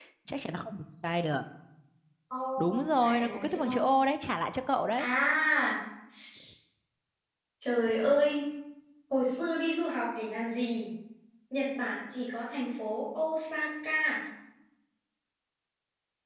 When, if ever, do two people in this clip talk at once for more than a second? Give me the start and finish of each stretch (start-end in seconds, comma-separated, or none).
2.6-3.9